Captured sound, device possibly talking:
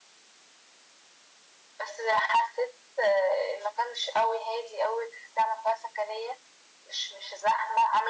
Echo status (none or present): present